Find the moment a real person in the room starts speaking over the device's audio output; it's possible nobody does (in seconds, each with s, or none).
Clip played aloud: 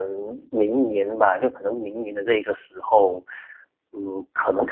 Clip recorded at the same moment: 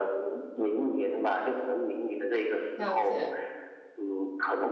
2.7 s